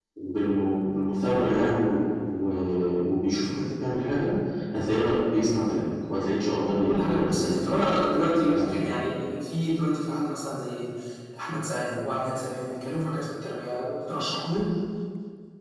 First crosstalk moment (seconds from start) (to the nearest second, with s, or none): 7 s